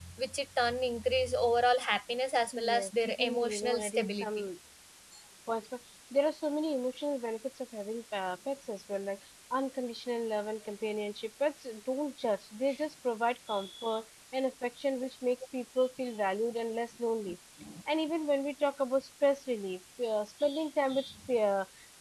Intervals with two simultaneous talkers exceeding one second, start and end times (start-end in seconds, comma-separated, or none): 2.8-4.3